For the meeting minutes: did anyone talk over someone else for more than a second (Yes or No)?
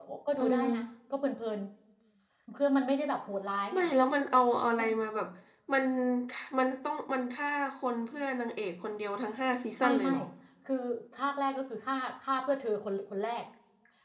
No